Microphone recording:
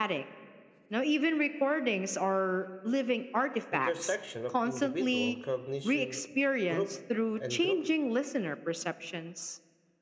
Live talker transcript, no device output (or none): intersection of individual cognition, group, and group